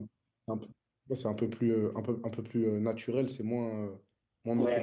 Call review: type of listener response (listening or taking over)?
taking over